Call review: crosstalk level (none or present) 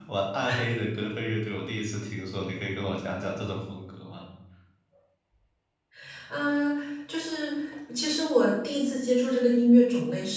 none